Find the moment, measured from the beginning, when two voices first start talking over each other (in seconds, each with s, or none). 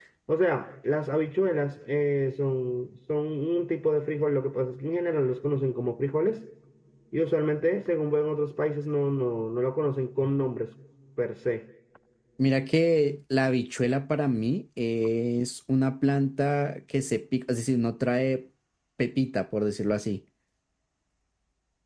none